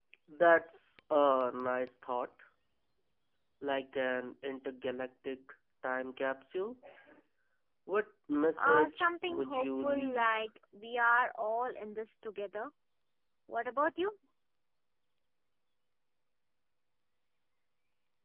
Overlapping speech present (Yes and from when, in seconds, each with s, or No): Yes, from 8.6 s